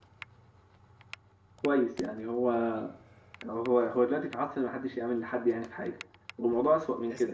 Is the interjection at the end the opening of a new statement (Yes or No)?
No